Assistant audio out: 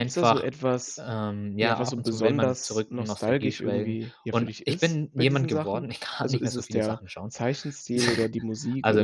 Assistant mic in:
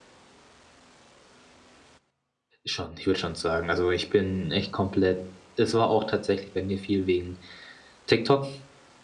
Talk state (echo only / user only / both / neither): user only